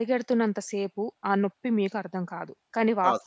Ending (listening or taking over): listening